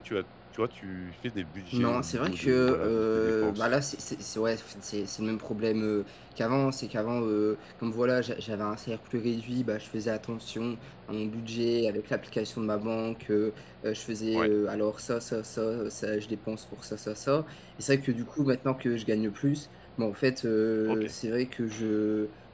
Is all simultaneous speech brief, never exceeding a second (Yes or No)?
No